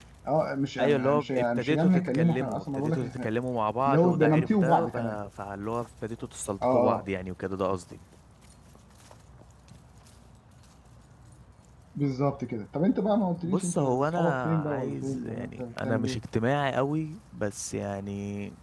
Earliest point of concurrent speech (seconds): 1 s

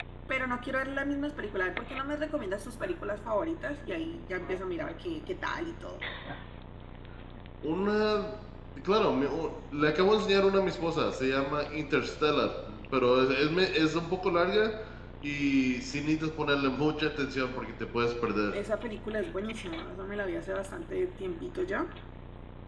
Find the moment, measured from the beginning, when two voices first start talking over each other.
none

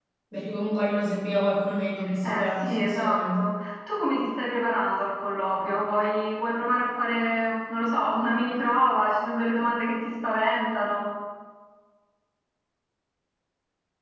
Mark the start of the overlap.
2 s

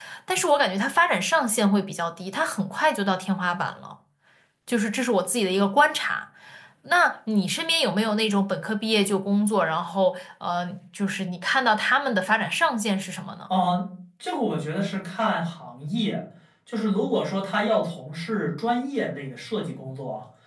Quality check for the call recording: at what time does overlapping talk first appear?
none

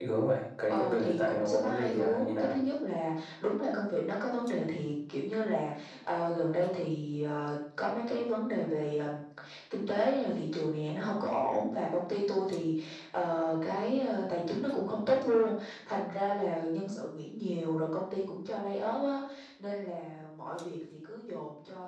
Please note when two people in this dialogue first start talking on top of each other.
1 s

